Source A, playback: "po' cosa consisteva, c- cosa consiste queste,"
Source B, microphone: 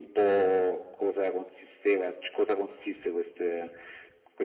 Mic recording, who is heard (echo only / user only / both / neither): echo only